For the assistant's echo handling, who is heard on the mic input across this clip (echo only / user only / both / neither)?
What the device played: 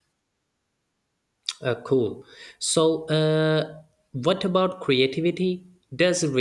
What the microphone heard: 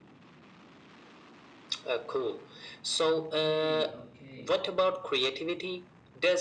both